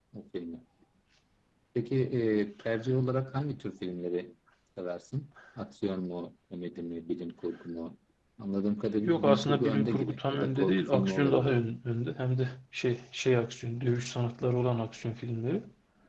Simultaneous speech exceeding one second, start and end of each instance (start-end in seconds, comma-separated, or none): 9.1-11.6